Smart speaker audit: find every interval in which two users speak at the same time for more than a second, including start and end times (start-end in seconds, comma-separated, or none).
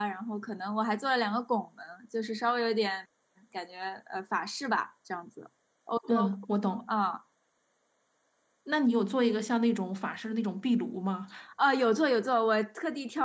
none